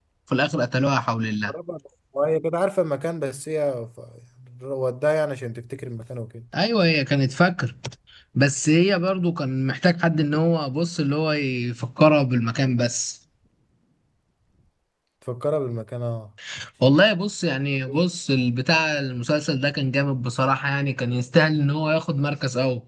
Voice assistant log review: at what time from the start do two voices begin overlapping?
none

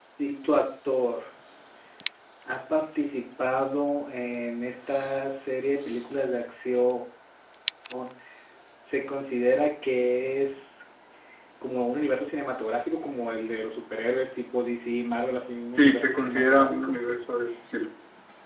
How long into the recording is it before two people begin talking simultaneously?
15.7 s

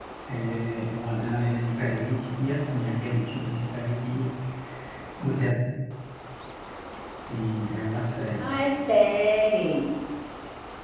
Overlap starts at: none

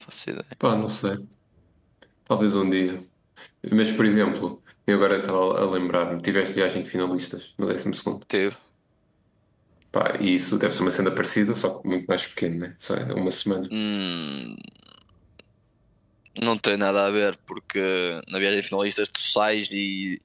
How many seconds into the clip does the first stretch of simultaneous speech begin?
none

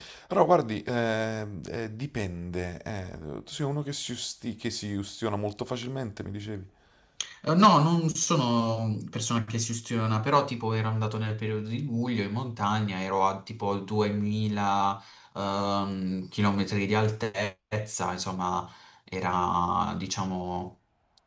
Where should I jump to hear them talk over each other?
none

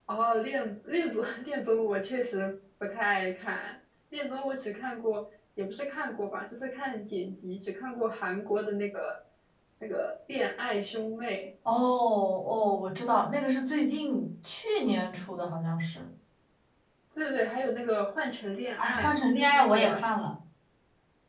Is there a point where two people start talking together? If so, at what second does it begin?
18.8 s

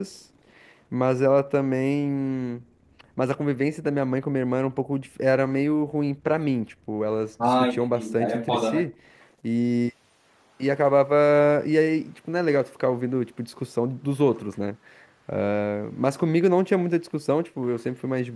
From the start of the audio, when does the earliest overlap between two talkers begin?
7.4 s

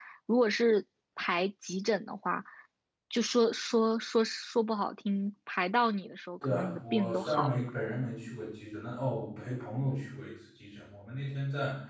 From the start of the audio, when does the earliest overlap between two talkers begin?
6.4 s

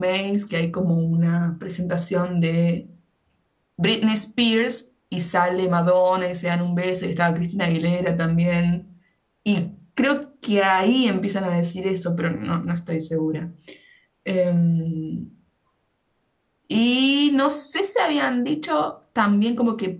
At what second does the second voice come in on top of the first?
none

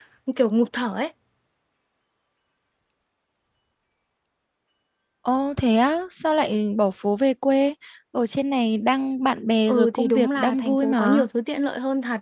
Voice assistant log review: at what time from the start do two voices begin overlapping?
9.7 s

